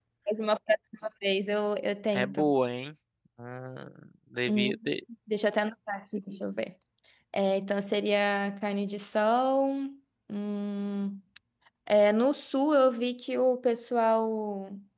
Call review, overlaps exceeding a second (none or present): none